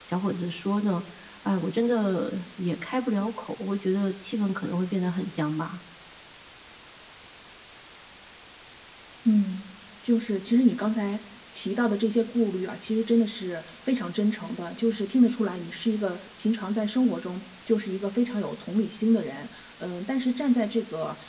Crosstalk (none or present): none